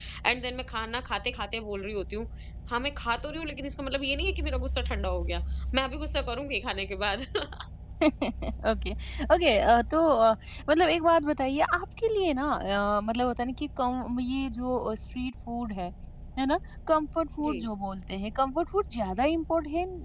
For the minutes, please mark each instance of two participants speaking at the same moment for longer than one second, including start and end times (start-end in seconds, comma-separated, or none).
none